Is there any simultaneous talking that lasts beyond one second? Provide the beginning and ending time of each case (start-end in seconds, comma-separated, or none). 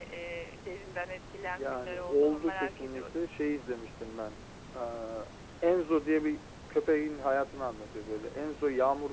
1.6-3.2